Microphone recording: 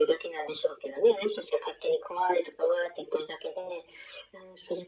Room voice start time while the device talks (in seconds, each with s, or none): none